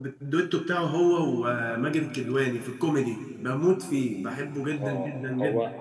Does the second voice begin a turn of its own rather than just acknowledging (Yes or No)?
Yes